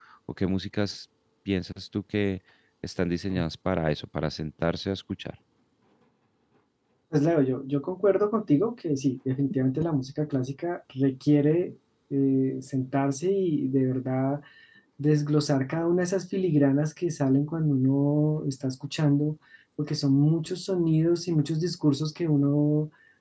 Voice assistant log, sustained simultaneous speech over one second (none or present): none